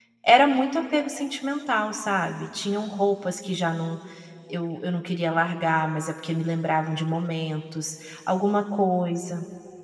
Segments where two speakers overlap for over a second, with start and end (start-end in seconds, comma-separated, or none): none